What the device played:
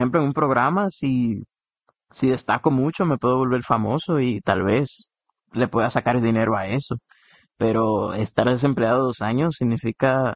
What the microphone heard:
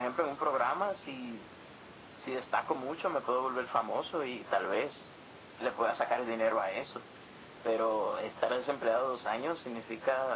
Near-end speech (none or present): none